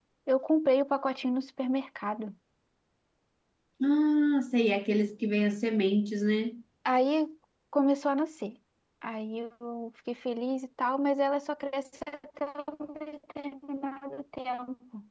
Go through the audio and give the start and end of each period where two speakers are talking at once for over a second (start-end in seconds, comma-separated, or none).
none